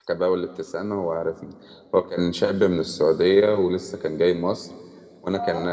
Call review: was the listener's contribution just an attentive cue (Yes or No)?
Yes